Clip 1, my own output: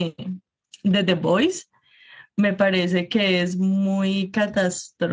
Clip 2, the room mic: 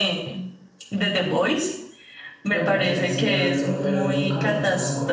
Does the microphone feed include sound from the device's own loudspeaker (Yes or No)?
Yes